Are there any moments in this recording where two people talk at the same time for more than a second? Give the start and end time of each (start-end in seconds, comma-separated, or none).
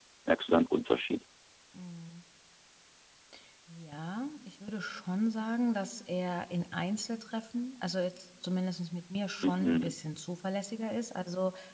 none